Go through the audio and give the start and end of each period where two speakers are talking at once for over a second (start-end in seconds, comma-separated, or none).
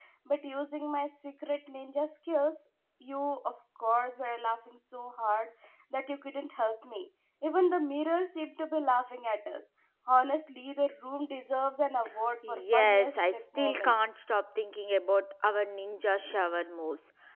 12.5-14.0